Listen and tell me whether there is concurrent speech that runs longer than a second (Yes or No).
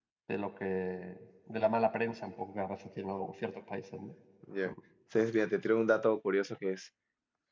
No